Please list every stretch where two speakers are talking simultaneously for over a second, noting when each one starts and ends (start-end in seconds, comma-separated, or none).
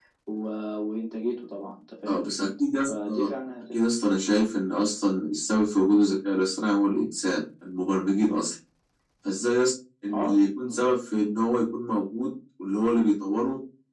none